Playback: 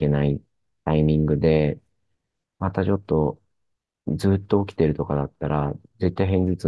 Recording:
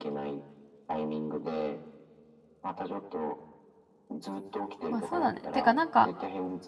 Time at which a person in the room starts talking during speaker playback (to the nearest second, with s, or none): 5 s